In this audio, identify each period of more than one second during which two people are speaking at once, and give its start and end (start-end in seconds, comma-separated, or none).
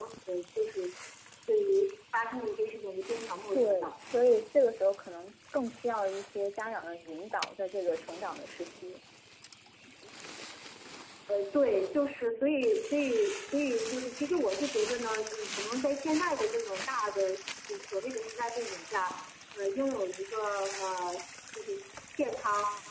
none